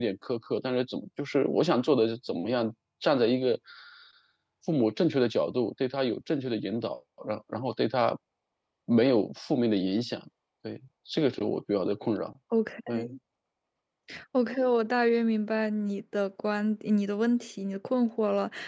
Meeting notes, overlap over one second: none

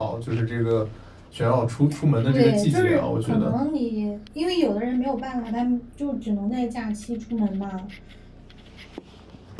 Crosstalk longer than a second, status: present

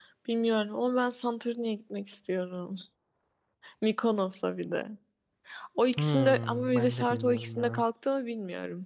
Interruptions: present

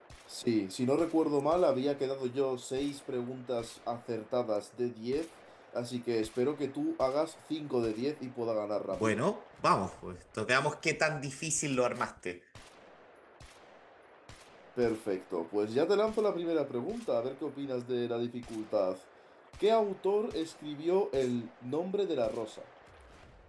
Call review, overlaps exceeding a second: none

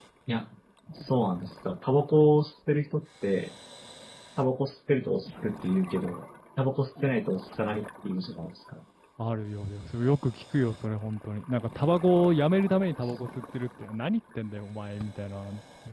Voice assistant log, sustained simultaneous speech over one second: none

